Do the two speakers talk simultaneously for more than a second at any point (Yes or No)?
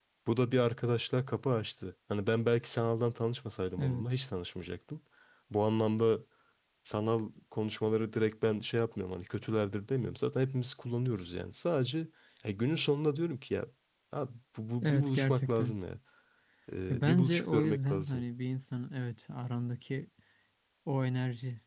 Yes